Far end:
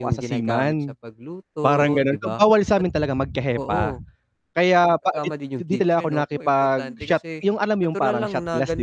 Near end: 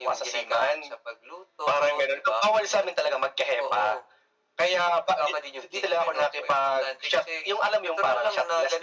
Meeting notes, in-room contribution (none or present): none